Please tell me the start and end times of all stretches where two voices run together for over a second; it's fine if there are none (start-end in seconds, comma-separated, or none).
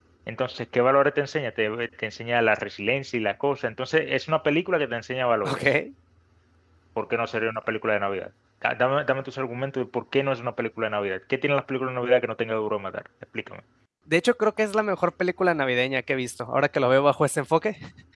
none